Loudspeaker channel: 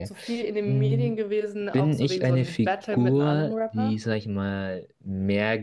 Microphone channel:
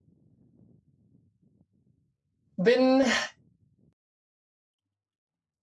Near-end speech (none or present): present